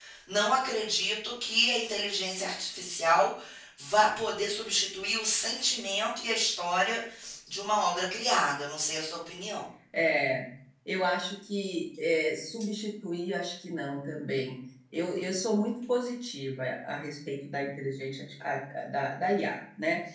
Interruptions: none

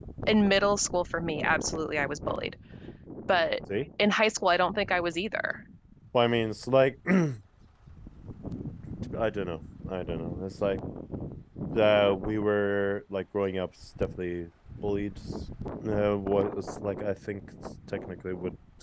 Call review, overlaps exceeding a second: none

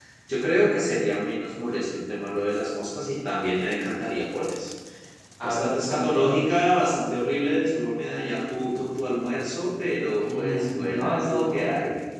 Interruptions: present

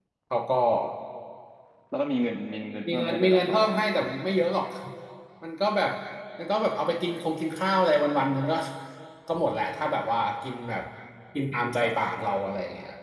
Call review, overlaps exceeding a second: present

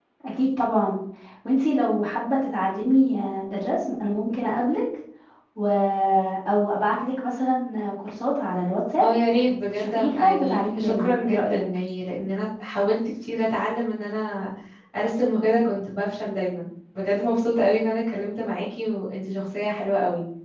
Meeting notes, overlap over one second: present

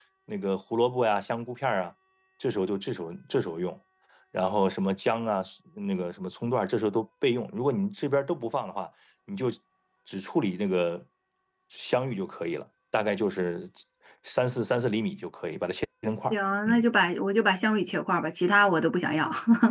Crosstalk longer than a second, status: none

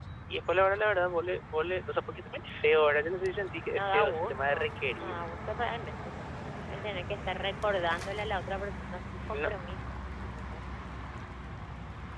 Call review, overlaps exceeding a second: present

